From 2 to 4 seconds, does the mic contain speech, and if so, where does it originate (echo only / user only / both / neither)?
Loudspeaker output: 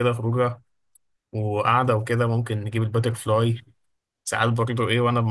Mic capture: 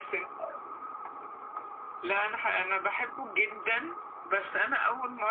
user only